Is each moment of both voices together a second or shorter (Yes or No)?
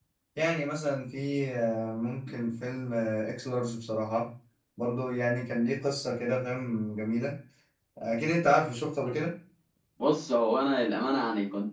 Yes